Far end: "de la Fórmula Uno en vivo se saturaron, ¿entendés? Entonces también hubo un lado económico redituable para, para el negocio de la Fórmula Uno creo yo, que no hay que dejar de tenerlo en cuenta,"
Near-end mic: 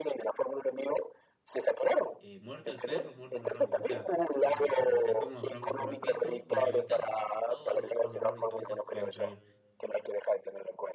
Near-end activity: present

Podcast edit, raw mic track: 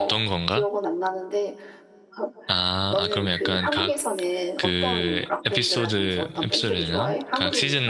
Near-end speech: present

